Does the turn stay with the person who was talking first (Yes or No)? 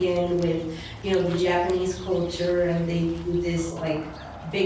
Yes